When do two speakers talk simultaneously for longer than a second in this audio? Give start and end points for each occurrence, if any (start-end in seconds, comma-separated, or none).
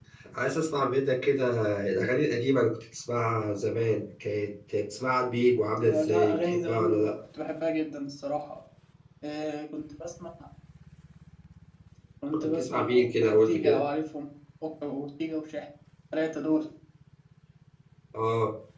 5.8-7.1, 12.3-13.8